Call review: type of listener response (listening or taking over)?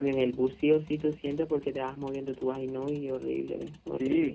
taking over